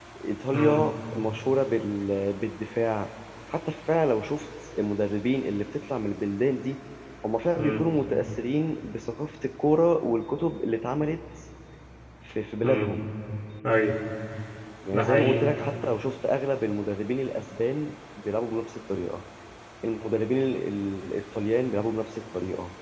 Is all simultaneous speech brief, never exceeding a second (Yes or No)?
Yes